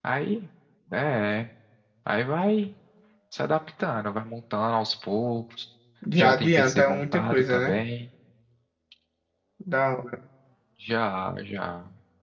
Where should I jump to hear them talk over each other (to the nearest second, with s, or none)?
6 s